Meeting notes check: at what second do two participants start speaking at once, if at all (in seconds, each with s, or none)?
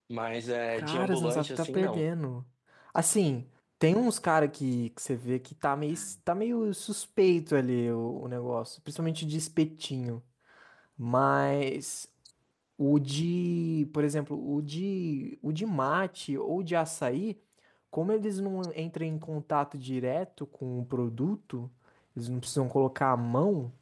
0.7 s